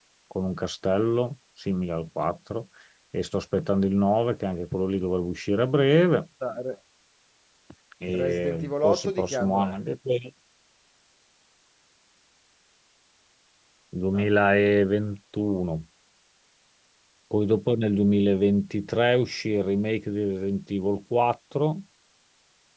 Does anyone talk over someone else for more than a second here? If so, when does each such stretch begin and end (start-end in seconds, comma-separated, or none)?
8.1-9.8